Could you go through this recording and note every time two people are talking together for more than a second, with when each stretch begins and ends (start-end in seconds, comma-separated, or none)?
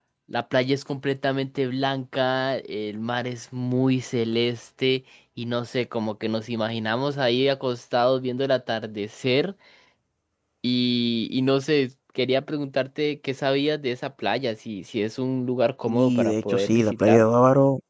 15.9-17.2